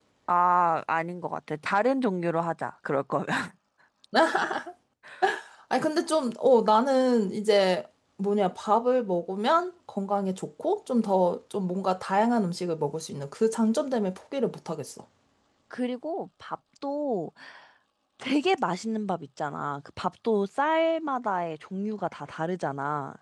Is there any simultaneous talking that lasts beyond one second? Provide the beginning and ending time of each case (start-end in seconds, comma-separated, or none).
none